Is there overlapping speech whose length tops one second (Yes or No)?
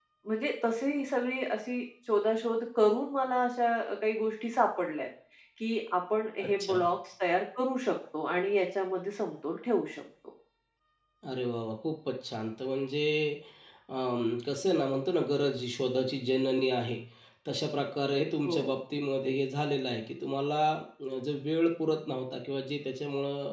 No